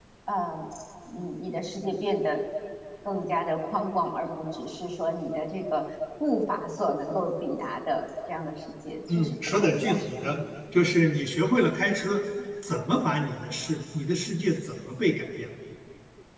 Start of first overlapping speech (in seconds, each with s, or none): 9.1 s